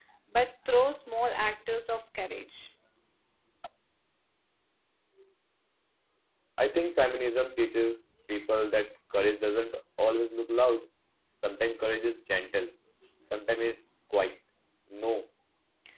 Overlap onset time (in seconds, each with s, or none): none